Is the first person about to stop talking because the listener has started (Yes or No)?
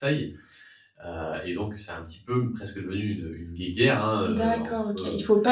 Yes